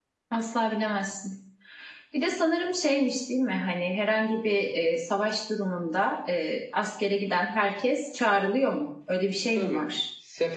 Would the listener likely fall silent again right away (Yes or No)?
No